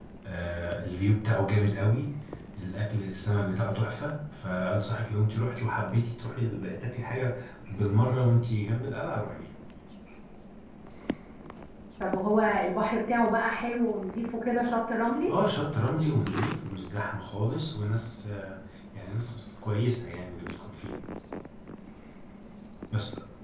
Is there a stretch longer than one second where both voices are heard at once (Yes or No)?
No